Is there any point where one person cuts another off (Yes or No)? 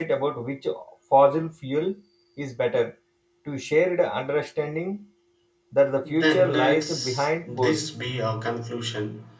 Yes